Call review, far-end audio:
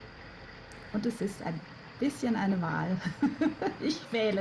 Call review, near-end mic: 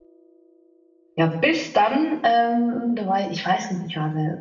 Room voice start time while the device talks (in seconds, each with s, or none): 1.2 s